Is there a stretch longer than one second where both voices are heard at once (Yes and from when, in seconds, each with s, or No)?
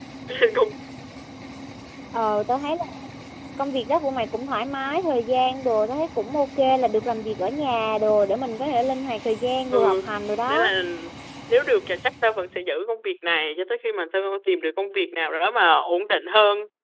No